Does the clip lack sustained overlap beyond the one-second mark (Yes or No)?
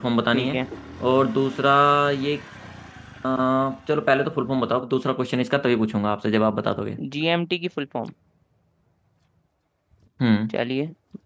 Yes